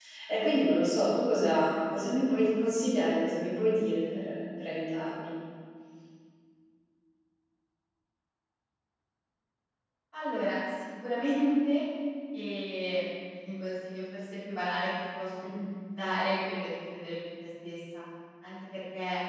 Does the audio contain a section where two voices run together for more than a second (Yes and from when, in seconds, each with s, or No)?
No